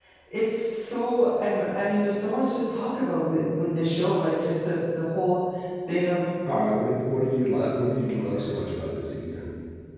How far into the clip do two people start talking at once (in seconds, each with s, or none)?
none